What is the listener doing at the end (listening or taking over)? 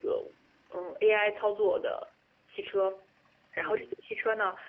listening